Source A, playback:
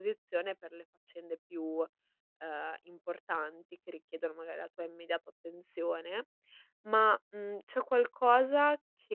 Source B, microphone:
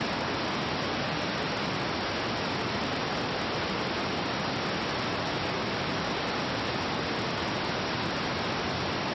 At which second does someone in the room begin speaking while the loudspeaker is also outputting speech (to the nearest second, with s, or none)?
none